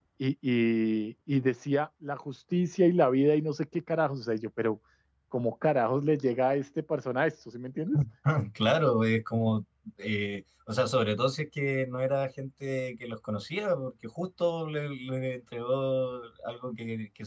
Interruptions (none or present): none